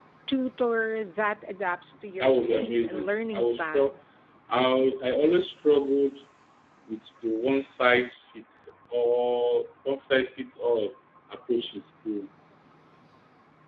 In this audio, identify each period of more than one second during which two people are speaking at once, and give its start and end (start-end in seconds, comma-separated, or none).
2.2-3.9